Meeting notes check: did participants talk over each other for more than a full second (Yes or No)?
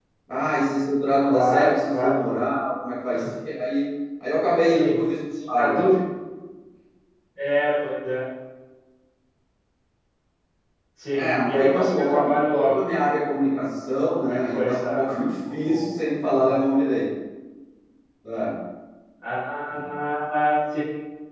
Yes